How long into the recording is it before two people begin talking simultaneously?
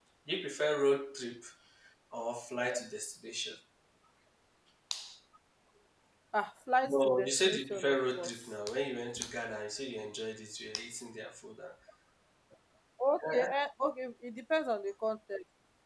7 s

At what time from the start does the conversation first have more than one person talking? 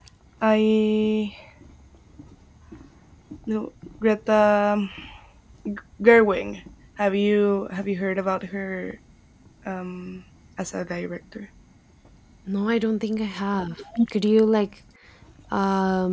none

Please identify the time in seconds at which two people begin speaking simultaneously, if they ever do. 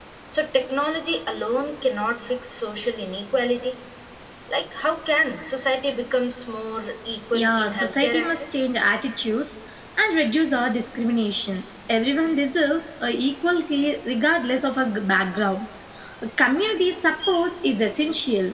7 s

